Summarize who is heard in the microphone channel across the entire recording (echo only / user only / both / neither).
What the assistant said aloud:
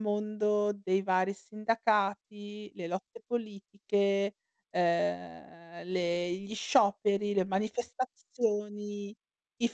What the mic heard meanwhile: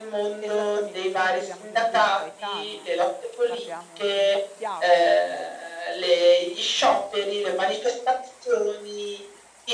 both